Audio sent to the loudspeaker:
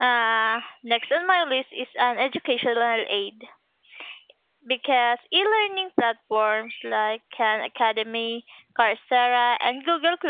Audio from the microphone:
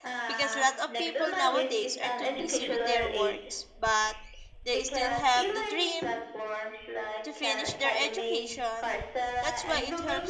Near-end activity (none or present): present